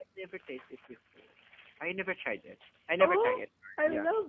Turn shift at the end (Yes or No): Yes